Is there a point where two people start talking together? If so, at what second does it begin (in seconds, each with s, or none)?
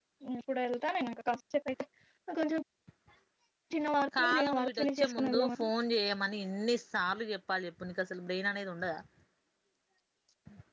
4.2 s